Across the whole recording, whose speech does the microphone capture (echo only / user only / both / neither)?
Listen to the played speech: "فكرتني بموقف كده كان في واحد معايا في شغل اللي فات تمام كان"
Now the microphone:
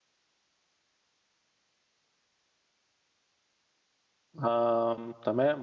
user only